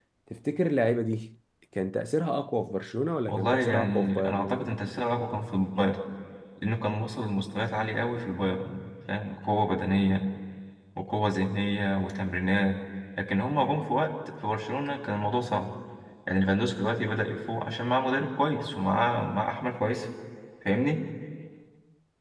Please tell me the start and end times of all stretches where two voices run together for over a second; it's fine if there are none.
3.3-4.7

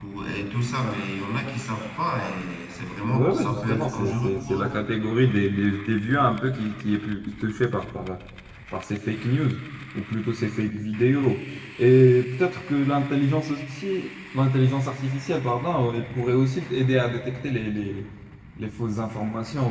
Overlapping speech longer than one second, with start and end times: 3.1-4.7

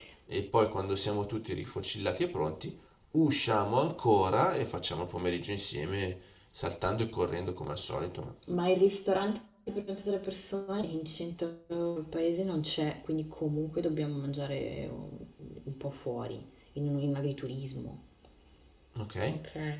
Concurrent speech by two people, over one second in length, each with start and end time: none

